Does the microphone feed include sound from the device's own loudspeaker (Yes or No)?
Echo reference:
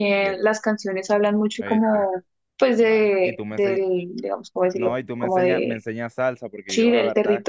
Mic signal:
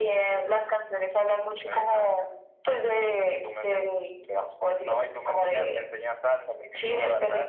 Yes